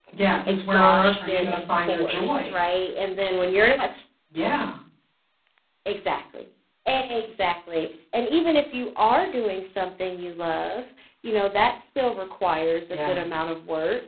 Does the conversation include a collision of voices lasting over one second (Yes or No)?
Yes